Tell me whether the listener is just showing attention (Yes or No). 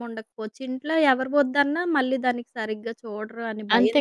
No